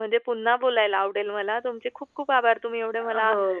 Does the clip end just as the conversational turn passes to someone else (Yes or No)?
No